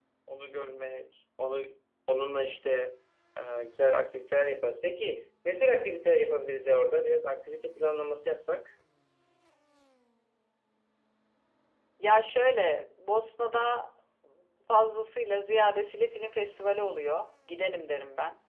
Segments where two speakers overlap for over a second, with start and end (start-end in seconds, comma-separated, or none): none